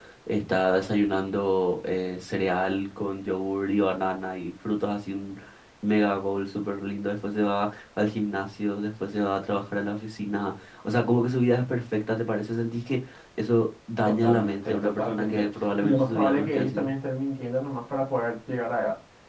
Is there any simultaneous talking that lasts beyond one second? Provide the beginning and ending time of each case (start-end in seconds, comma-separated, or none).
14.0-16.9